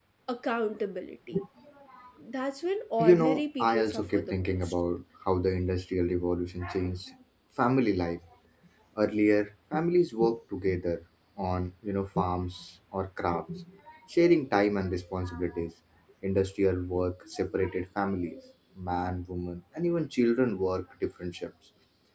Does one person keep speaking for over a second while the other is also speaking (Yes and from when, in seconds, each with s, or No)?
Yes, from 3.0 s